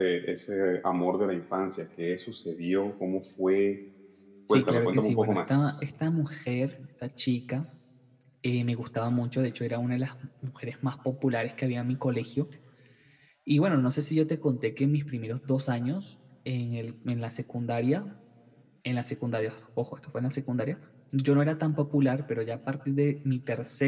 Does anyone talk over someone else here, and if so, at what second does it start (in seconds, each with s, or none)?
4.5 s